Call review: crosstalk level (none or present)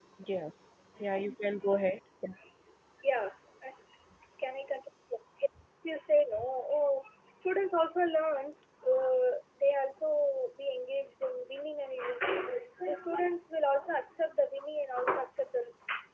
none